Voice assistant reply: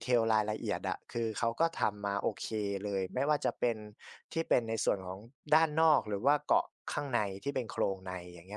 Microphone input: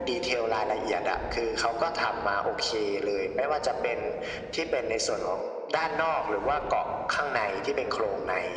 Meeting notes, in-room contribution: none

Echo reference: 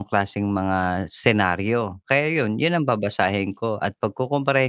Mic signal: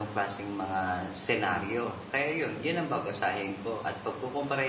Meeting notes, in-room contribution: none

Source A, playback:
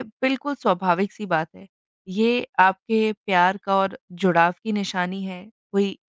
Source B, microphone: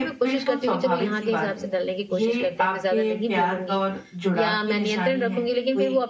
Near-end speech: present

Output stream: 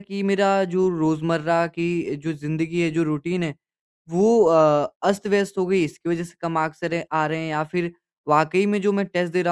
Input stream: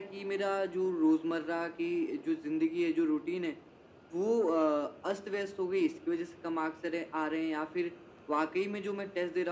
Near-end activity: none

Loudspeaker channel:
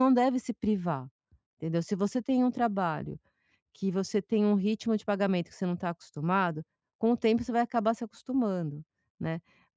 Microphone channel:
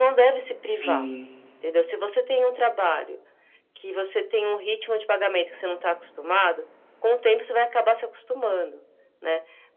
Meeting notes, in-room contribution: present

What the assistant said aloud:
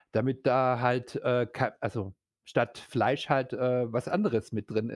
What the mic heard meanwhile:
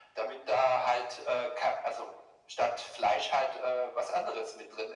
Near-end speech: none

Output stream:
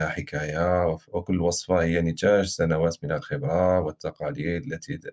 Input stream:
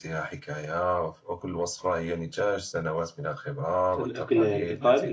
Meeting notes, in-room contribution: present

